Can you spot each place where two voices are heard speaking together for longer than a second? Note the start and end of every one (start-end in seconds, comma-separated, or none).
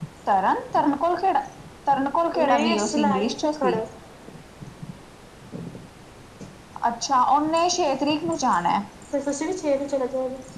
2.4-3.8